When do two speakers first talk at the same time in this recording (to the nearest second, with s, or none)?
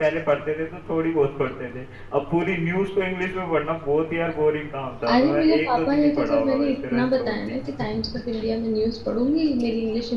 5 s